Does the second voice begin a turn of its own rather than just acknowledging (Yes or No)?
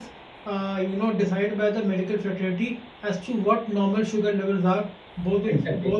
No